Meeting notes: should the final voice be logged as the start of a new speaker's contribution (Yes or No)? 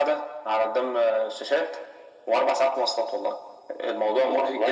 Yes